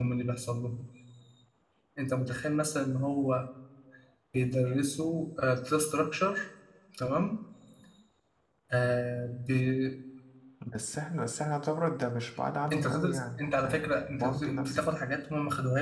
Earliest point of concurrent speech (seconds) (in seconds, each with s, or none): 12.7 s